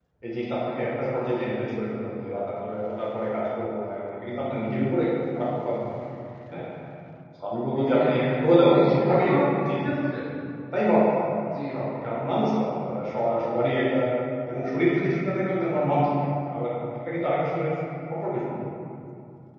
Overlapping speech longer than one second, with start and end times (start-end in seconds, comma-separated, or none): 7.8-9.4